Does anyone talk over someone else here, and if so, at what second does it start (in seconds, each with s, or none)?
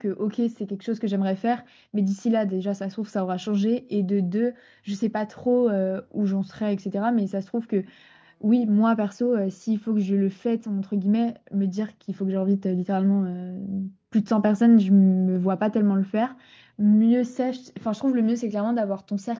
none